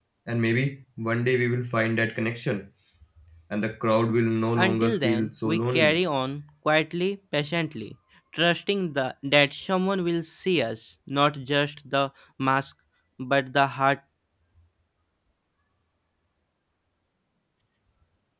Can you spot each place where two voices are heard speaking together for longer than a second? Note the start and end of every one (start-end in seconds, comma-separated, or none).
4.6-6.0